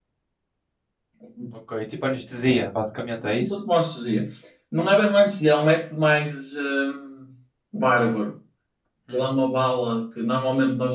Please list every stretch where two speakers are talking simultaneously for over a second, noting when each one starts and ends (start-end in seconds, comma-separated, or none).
none